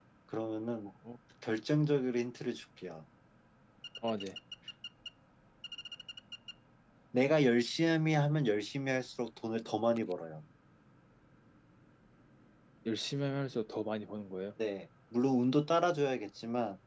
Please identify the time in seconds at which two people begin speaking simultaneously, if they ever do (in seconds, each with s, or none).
none